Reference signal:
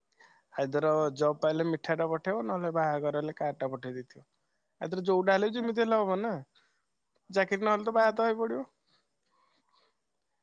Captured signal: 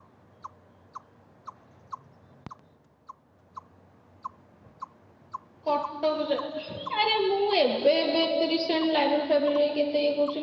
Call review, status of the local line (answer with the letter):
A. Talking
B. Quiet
A